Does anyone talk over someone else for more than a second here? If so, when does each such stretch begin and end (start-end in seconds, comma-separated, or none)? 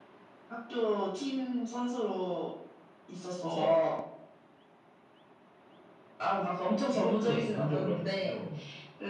6.7-8.3